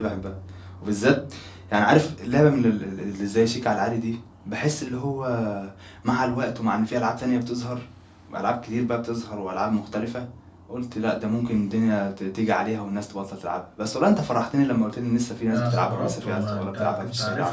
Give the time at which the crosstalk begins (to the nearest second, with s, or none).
15 s